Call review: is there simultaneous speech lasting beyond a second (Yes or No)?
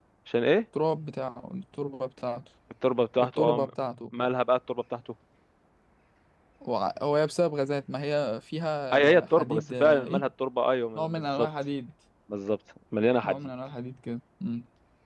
Yes